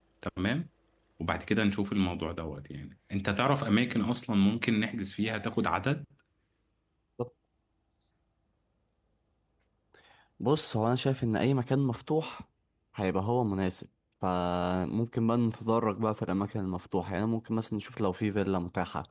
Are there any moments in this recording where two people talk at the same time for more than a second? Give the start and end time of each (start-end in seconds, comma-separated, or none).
none